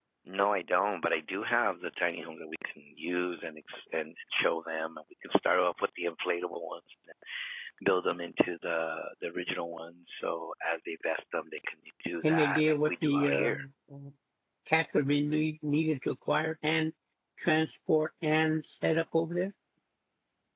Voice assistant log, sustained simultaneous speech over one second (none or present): present